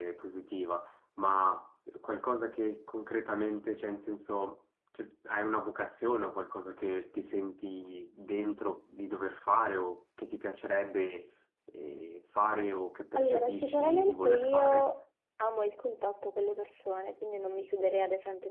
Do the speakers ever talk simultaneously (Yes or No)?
Yes